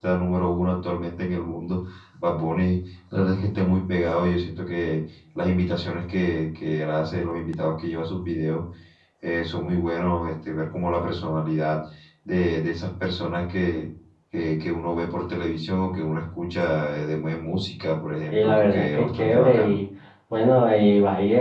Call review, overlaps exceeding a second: present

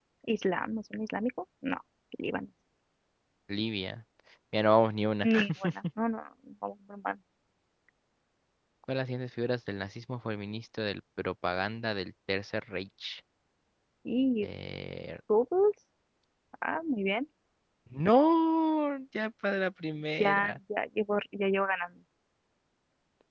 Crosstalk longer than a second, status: none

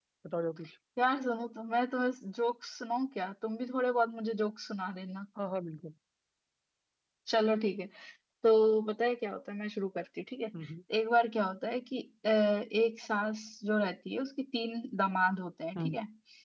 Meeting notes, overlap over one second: none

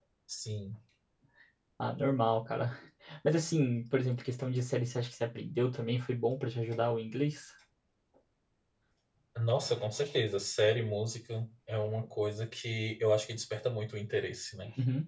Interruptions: none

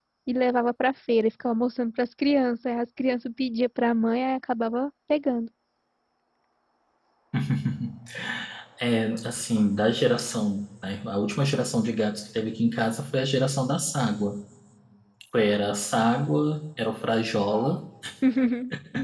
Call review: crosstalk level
none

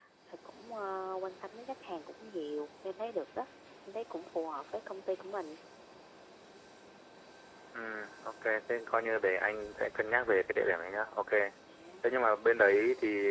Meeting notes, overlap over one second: none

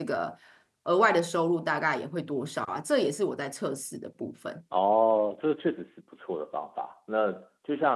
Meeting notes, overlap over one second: none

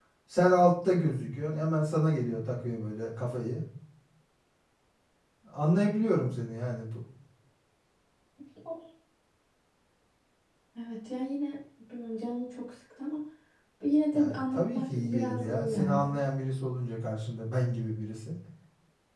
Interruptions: present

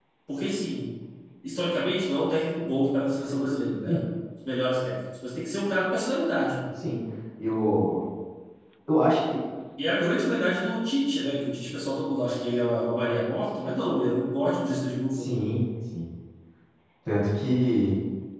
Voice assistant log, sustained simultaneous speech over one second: none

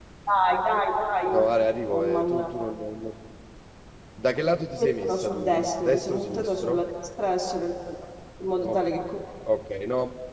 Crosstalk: present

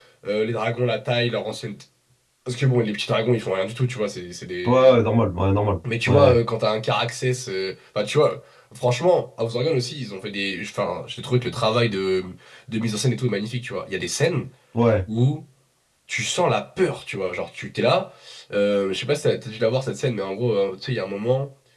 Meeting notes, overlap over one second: none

